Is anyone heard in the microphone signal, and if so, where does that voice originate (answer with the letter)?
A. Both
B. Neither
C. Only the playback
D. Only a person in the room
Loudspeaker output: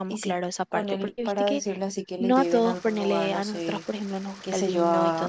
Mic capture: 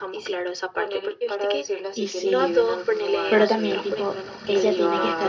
A